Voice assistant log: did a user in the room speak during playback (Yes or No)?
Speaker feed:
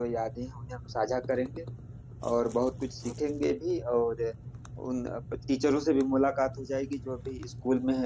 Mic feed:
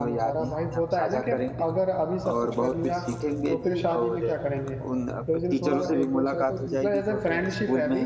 Yes